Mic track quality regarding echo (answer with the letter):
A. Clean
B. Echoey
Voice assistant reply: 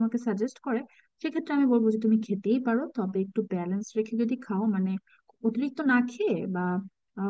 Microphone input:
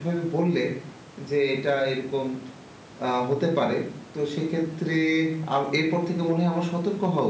A